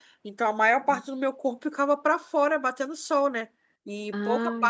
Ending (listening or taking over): listening